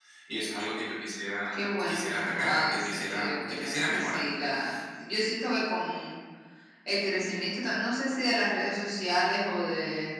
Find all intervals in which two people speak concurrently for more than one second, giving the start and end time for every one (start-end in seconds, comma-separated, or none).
1.5-4.2